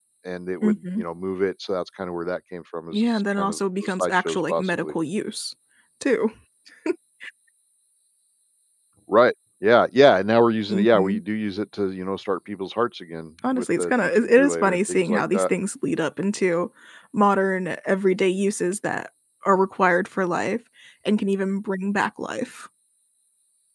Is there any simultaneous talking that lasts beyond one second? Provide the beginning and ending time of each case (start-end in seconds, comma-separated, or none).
2.9-4.9, 13.6-15.5